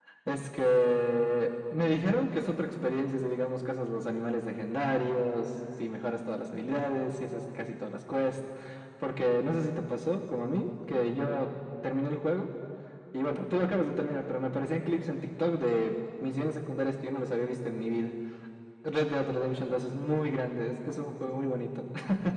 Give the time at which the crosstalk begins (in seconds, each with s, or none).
none